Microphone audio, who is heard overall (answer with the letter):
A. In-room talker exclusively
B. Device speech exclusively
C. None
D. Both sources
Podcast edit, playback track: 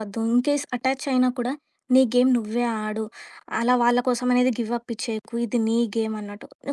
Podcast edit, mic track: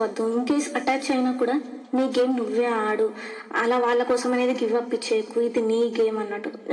B